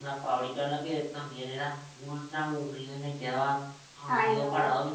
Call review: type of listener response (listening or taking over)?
listening